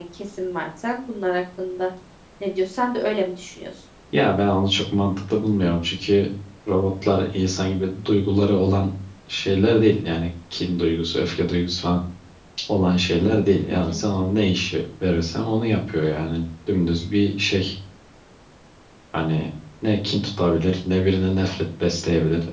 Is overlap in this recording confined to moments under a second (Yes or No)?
Yes